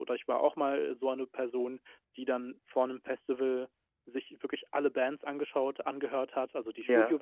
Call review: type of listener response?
listening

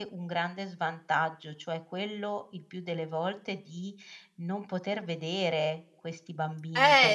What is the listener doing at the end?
taking over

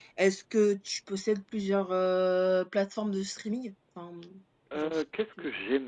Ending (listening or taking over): taking over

